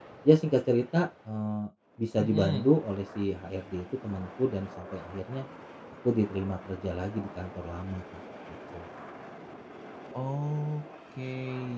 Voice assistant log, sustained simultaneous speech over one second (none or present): none